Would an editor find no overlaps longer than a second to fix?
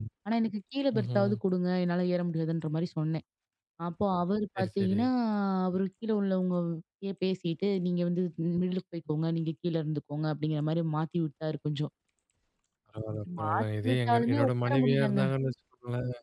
No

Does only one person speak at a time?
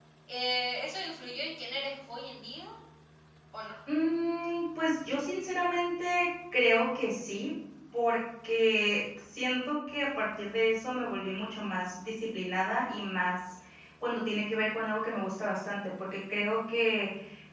Yes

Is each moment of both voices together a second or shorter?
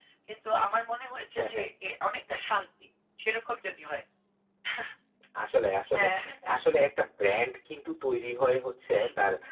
Yes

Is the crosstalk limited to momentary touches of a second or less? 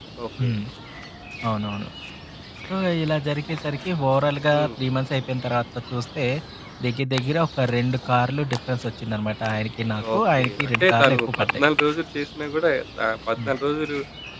No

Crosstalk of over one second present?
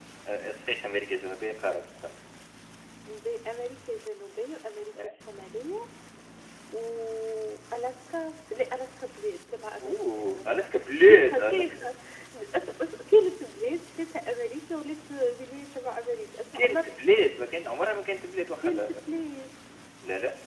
Yes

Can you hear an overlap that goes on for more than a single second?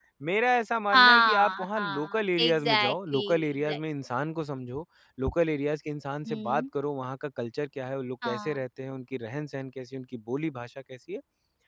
Yes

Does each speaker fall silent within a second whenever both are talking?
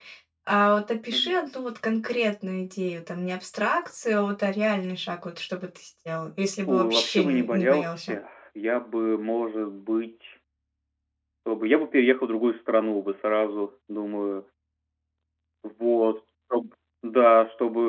No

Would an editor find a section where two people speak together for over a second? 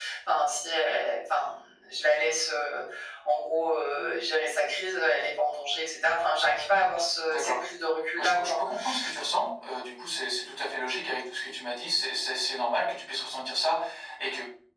No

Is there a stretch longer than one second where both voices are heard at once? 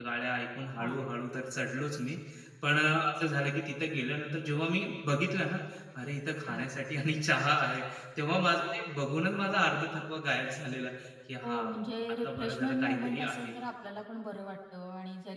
Yes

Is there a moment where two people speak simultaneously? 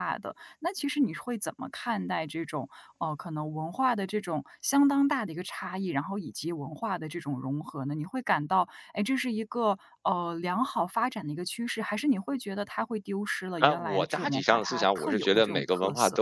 Yes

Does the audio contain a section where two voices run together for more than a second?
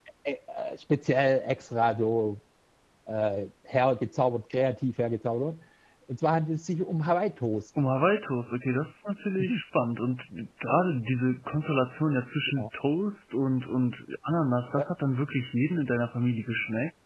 No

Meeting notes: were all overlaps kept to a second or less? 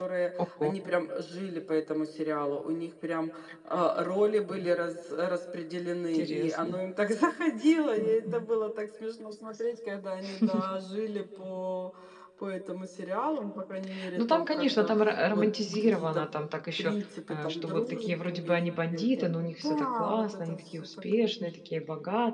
No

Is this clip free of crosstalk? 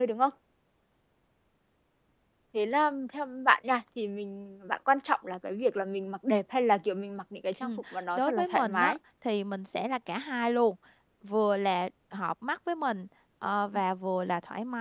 No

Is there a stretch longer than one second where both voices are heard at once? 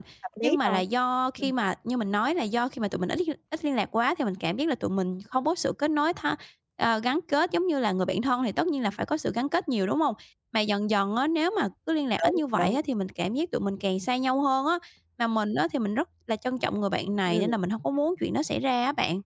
No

